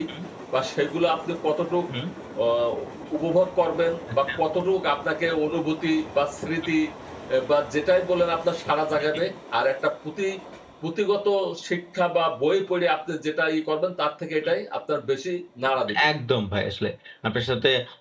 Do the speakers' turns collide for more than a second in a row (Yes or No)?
No